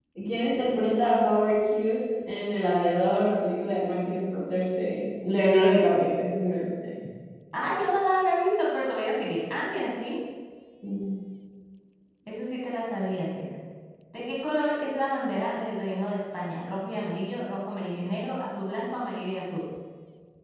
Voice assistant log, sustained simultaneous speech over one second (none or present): none